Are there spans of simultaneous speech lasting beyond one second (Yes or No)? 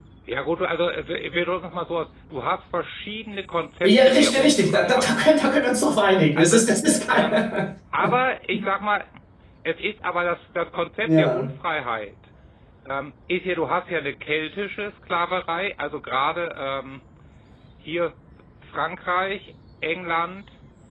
Yes